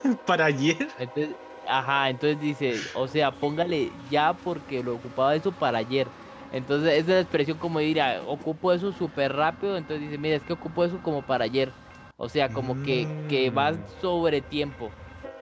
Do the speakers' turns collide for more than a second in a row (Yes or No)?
Yes